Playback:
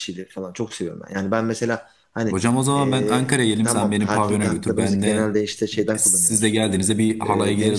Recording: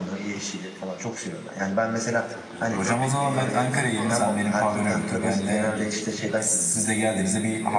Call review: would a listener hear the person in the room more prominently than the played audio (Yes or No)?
No